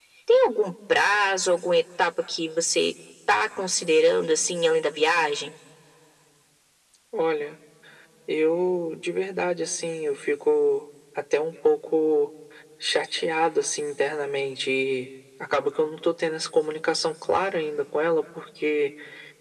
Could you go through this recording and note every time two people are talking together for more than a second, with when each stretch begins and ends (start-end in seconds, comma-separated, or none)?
none